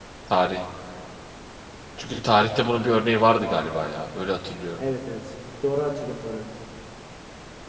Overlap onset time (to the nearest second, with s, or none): none